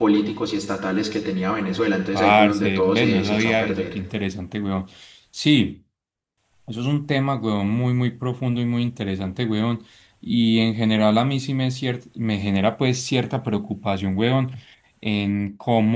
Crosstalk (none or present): present